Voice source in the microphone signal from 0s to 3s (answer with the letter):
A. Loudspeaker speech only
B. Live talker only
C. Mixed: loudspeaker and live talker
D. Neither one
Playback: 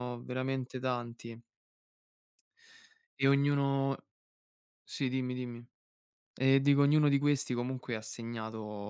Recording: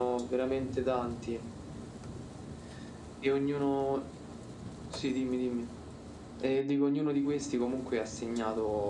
A